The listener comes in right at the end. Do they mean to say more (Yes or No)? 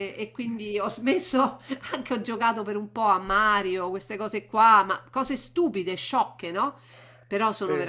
No